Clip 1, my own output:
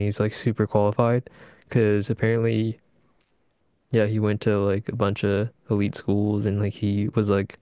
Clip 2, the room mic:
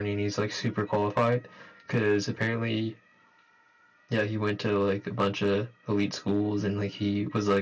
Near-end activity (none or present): none